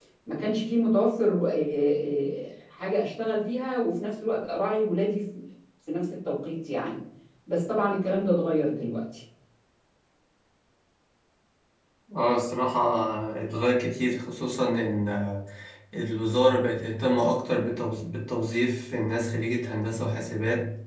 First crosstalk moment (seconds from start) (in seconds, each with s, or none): none